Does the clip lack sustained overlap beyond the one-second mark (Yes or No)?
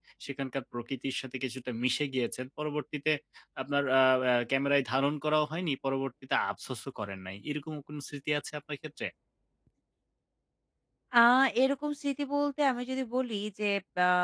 Yes